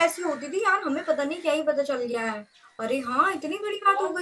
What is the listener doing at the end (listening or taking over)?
taking over